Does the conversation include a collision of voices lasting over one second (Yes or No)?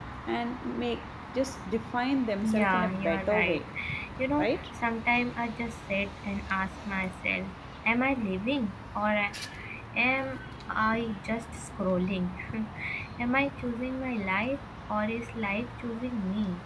Yes